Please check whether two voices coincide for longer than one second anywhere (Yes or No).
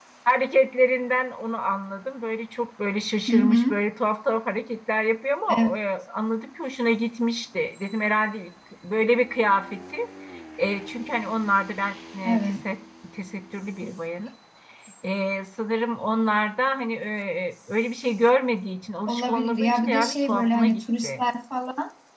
Yes